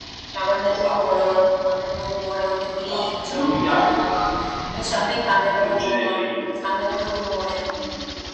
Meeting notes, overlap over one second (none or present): present